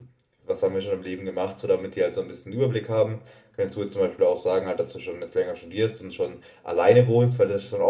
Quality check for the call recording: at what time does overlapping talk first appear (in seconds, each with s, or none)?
none